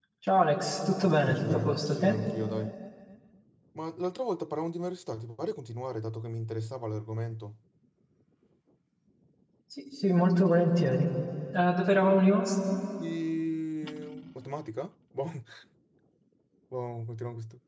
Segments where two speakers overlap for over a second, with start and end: 1.0-2.2

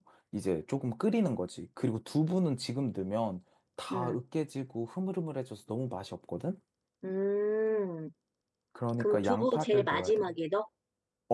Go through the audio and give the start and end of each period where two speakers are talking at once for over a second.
9.0-10.3

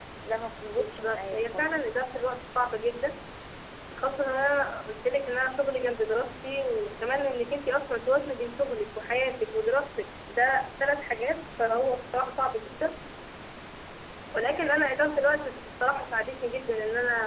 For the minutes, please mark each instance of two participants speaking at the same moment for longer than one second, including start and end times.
0.7-2.1

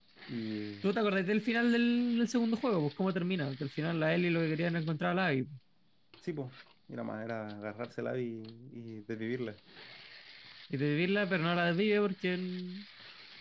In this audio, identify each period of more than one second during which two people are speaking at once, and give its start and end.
none

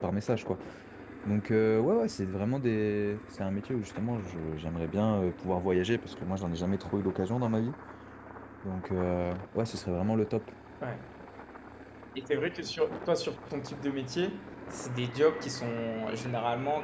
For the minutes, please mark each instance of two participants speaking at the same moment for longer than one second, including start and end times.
none

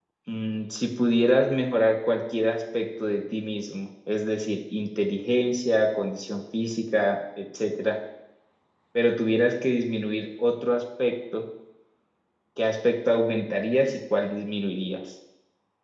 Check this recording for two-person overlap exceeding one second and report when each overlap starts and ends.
none

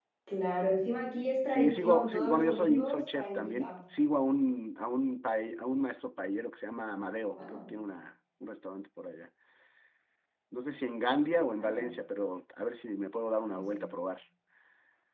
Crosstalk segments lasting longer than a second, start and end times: 1.5-3.7

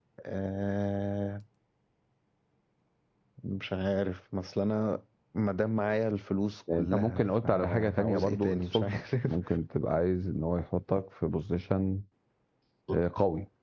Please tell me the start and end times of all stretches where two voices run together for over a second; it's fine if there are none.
6.7-9.4

